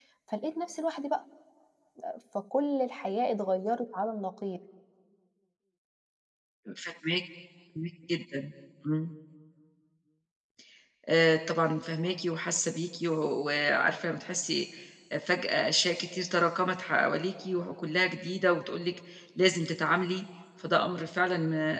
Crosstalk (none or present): none